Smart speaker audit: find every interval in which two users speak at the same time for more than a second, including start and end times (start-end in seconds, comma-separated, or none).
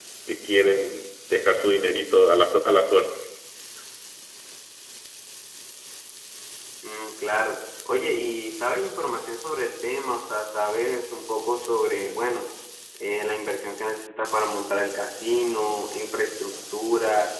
none